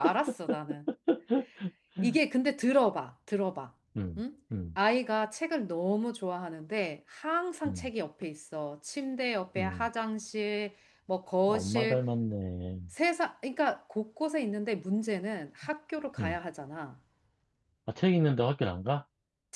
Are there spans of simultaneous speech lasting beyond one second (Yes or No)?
No